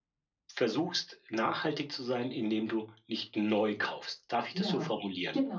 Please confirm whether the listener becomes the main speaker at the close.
Yes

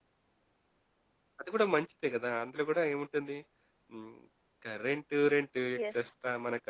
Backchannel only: Yes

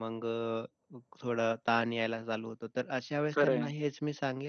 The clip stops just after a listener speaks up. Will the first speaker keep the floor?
Yes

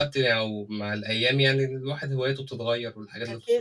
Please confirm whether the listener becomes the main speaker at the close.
Yes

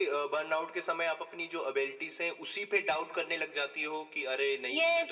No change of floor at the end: No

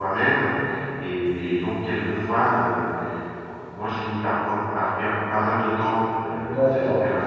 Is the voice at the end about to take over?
Yes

